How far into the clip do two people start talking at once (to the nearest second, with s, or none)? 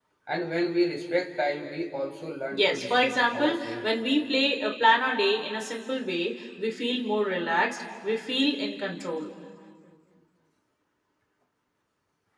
3 s